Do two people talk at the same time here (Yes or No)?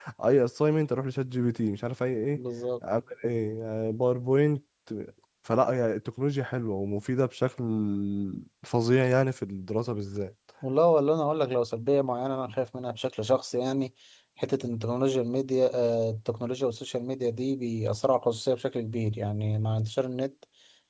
No